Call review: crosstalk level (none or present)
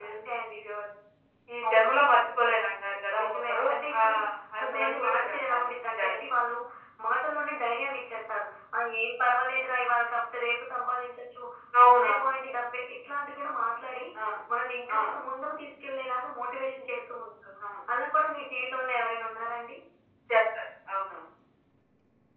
present